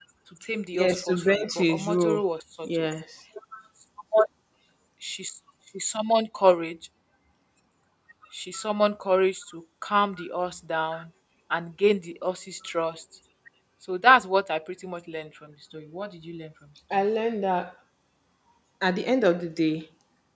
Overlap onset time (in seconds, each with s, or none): 0.7 s